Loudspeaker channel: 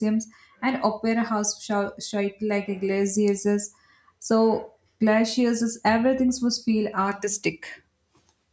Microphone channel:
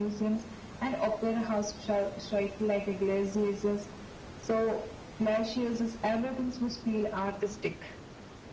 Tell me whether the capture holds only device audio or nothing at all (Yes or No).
Yes